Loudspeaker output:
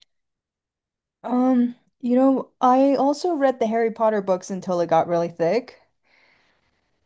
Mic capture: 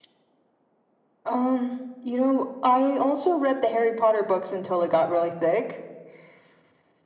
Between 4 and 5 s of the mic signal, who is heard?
echo only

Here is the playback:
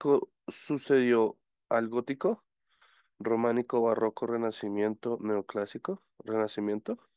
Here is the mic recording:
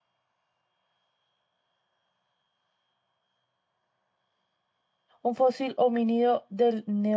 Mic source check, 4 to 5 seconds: neither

